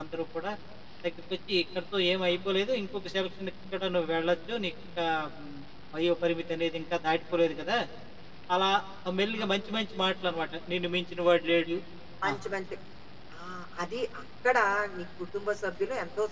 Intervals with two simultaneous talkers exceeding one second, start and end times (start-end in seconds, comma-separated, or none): none